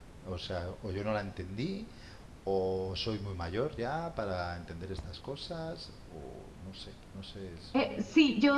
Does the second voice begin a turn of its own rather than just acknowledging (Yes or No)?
Yes